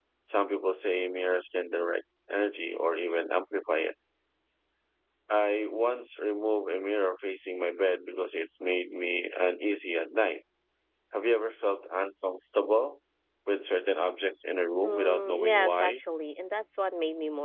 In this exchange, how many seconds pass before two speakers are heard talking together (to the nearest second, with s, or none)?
15 s